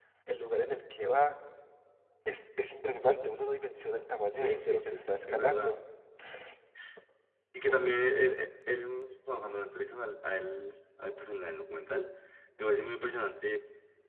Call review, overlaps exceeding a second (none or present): present